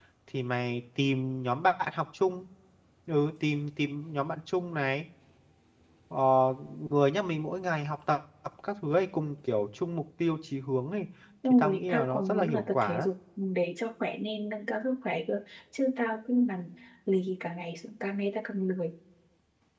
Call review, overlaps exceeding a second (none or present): present